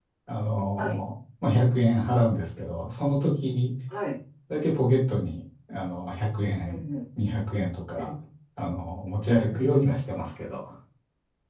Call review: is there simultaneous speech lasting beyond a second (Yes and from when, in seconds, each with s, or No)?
No